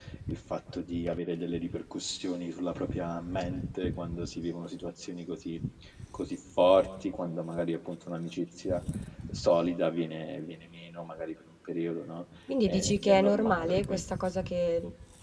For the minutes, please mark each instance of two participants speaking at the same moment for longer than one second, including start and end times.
12.7-14.0

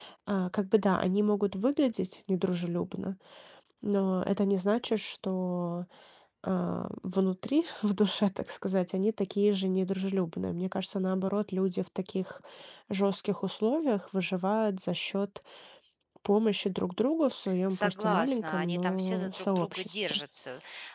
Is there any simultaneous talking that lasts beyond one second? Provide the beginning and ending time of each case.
17.7-20.2

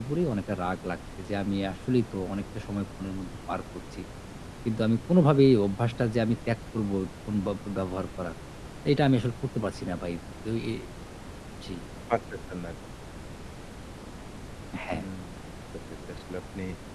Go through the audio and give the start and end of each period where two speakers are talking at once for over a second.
none

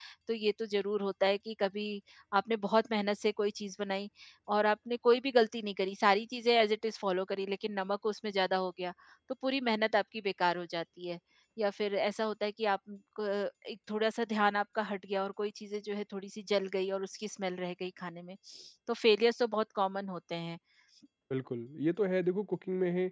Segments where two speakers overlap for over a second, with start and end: none

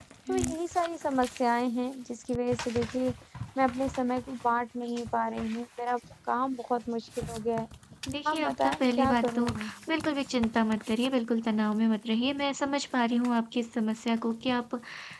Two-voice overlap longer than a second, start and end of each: 8.3-9.5

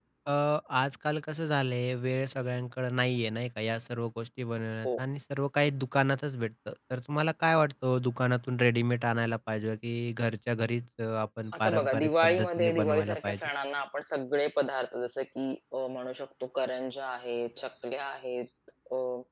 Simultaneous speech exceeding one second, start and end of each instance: 11.6-13.5

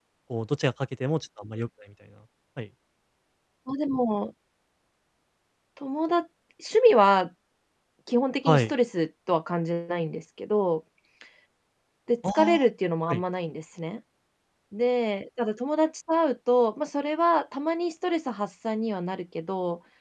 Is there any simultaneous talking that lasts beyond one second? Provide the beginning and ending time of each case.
none

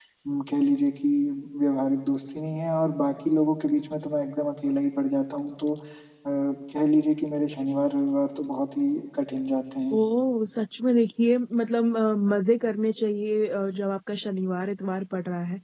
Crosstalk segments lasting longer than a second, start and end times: none

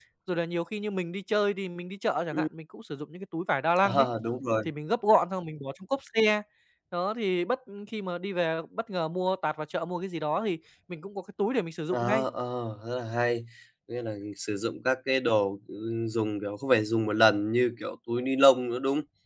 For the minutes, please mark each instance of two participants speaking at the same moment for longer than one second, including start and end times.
none

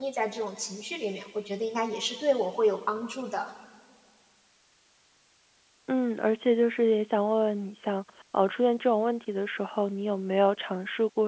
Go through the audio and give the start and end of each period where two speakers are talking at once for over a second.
none

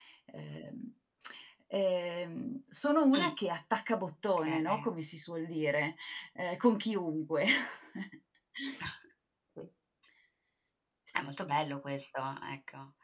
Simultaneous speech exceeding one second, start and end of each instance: none

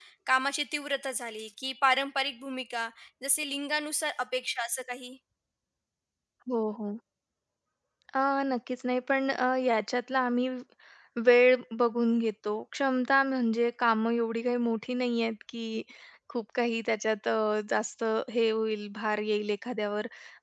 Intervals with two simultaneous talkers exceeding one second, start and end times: none

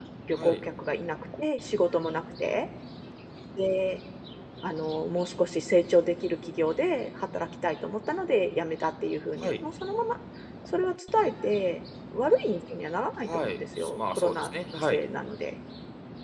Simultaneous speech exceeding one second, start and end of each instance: 13.2-15.0

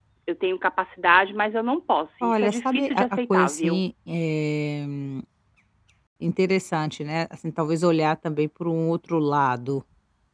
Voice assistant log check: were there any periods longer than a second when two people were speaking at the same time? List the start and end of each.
2.2-3.8

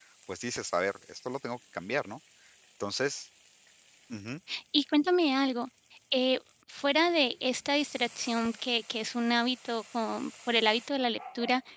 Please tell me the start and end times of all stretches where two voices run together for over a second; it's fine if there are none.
none

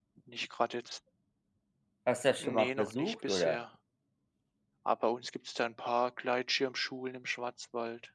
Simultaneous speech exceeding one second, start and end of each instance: 2.4-3.6

